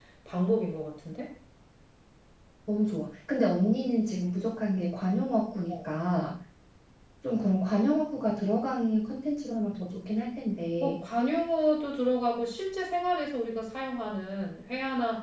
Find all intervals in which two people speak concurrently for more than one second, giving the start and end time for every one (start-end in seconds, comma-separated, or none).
none